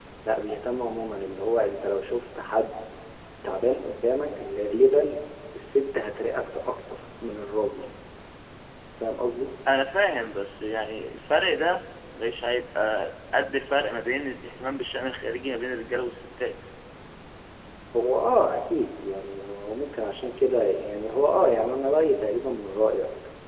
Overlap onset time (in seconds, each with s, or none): none